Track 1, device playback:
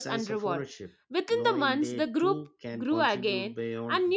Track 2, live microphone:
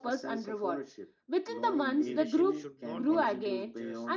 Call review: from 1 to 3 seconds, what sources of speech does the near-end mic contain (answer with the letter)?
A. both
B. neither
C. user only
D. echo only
A